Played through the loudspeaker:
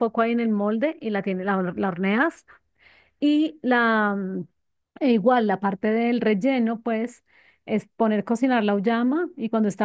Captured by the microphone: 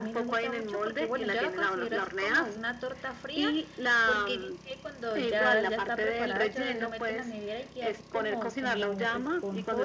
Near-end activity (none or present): present